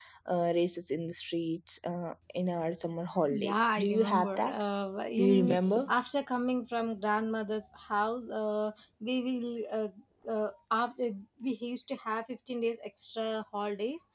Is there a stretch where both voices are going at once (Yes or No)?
Yes